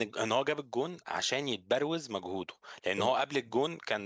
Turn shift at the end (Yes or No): No